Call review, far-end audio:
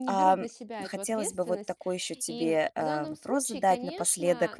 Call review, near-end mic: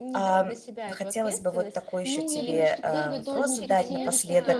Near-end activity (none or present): present